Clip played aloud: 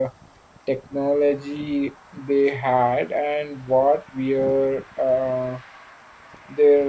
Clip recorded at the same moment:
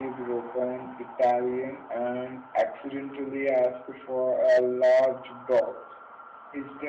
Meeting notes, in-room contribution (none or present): present